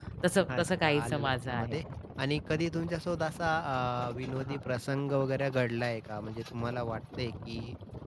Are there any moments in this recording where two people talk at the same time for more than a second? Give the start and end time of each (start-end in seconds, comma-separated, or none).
0.6-1.8